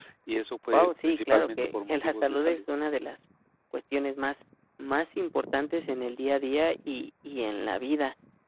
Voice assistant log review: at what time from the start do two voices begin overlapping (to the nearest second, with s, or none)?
1 s